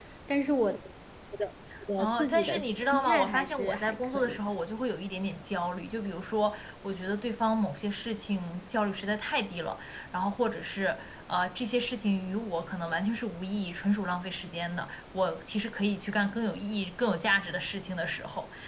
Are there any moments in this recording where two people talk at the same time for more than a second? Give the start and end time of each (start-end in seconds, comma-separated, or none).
2.0-4.4